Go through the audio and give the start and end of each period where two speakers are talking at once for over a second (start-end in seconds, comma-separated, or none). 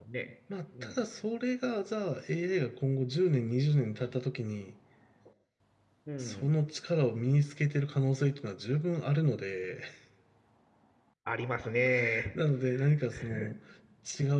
none